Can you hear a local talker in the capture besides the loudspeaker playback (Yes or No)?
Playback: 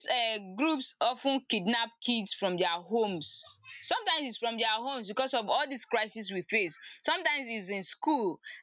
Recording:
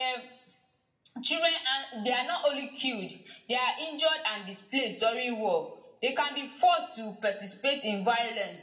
Yes